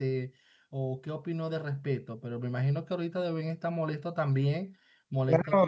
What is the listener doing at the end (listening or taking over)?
taking over